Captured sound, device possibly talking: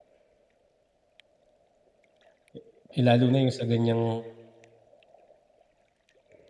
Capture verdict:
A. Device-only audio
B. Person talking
B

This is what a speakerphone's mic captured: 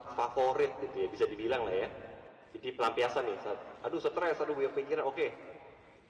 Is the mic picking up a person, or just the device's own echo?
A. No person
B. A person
A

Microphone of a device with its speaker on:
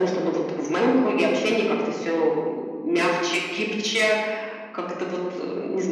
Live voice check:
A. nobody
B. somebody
A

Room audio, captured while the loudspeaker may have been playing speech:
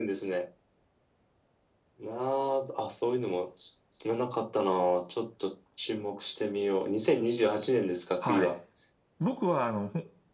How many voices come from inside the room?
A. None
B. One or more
B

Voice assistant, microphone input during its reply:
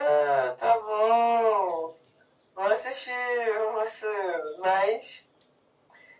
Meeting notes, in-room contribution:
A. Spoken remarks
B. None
B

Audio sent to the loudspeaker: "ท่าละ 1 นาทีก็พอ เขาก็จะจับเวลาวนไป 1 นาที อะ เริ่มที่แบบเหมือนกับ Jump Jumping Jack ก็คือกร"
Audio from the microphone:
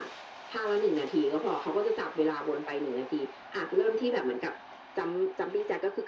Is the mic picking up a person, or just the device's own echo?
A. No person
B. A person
A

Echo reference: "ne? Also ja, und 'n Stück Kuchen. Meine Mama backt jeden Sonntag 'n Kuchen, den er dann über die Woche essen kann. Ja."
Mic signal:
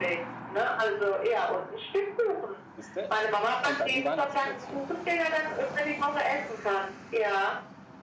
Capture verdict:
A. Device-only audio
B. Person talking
B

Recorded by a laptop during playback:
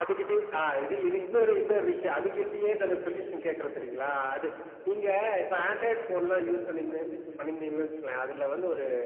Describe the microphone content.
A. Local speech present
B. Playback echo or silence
A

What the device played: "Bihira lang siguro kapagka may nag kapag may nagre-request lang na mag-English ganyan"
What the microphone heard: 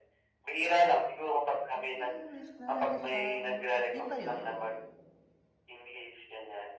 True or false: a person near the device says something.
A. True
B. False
A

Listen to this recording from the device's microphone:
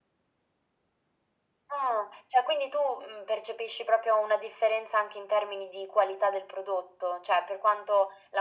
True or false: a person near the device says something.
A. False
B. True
A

